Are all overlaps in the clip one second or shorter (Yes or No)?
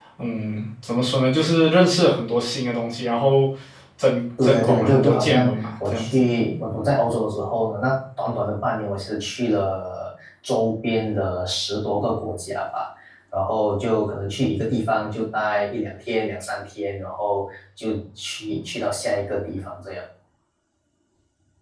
No